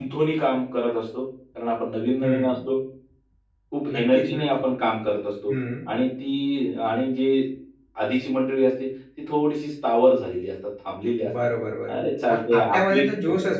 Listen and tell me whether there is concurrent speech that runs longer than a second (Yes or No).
Yes